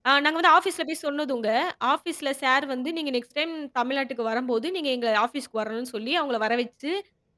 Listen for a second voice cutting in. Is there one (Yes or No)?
No